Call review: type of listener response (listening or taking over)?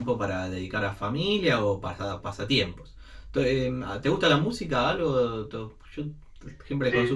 taking over